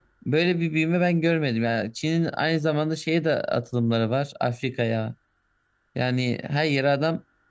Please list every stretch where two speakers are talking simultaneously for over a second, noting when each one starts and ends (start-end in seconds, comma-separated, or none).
none